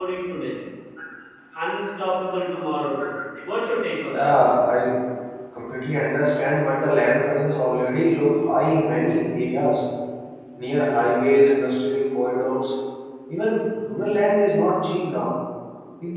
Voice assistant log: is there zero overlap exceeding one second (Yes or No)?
Yes